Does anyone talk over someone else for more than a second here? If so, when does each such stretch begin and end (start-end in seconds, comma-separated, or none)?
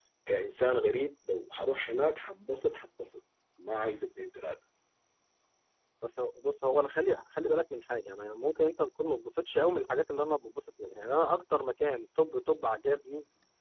none